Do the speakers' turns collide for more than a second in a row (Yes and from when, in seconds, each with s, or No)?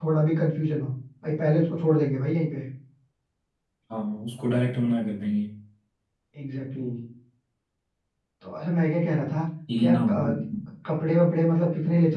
No